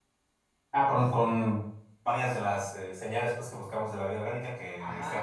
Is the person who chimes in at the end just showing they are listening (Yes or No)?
No